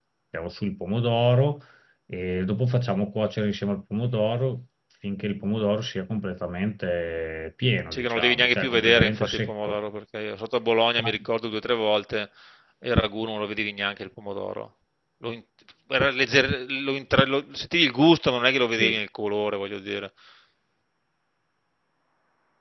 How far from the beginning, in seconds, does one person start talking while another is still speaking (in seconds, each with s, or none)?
7.9 s